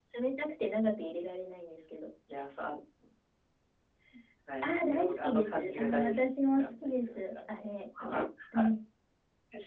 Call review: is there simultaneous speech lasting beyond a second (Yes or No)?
Yes